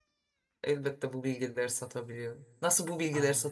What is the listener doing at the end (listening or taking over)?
listening